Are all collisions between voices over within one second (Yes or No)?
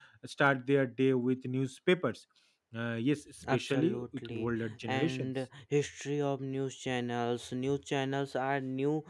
No